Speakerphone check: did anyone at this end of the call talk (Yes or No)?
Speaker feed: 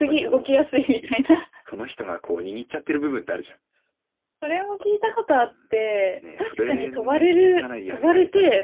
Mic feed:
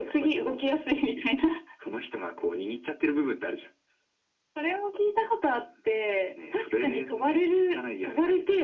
No